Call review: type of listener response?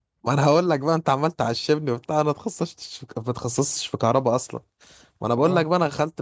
listening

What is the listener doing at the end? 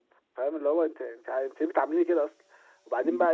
listening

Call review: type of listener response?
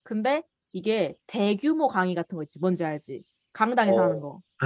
taking over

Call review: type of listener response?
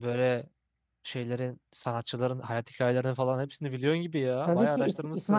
taking over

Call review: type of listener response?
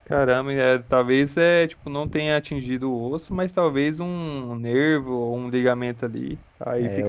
taking over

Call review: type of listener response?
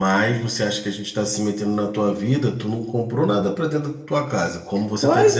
taking over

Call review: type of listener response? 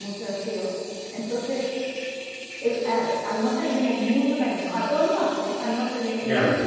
listening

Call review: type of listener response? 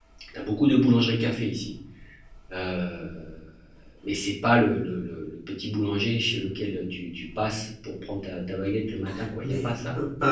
taking over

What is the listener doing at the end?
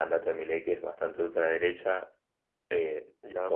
listening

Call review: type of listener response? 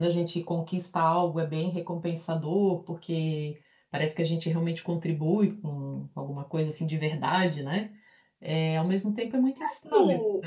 taking over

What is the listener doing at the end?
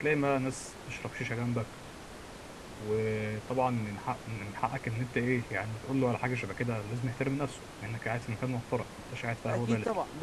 taking over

